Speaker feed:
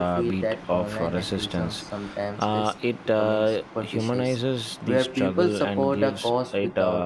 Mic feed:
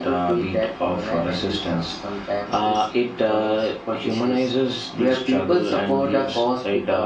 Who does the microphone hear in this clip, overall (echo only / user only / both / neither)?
echo only